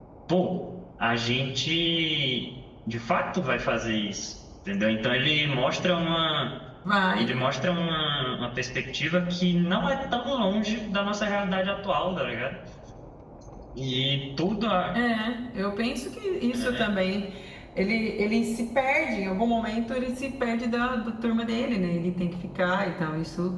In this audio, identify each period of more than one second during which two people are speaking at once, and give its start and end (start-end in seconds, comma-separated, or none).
none